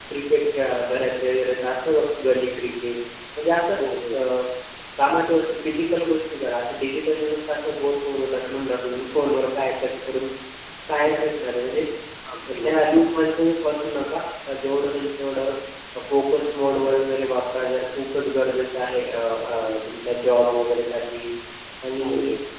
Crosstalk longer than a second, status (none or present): none